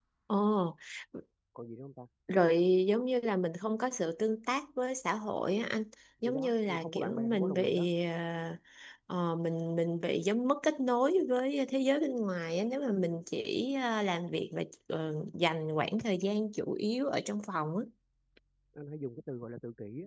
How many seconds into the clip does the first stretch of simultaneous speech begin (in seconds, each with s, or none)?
6.2 s